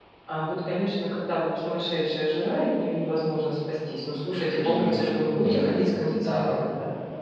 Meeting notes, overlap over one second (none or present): present